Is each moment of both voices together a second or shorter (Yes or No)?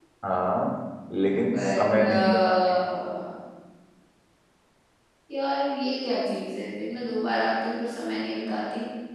No